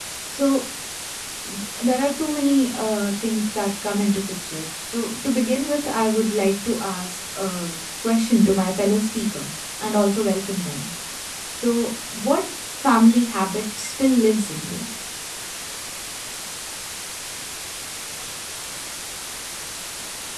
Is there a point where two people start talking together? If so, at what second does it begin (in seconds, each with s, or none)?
none